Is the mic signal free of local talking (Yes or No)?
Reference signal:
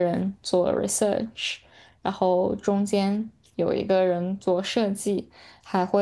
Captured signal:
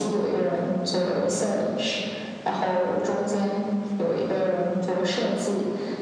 Yes